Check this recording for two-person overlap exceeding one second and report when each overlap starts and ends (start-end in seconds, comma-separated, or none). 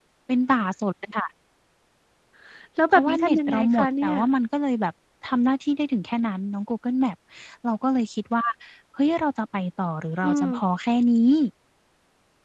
2.9-4.1